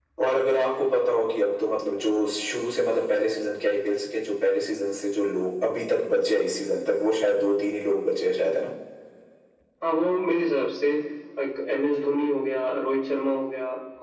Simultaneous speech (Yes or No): No